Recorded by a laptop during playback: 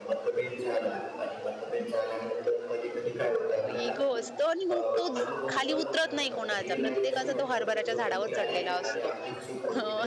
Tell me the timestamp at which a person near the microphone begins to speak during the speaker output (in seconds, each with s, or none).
3.7 s